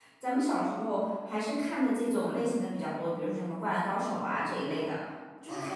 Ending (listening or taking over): taking over